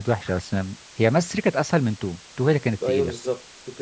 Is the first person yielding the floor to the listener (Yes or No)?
Yes